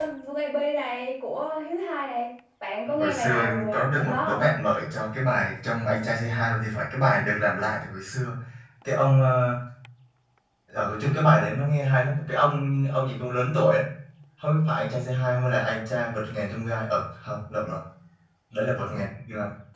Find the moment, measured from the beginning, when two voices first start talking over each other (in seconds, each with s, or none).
3.0 s